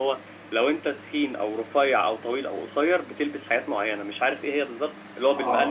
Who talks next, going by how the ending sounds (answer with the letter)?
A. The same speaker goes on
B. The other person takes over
A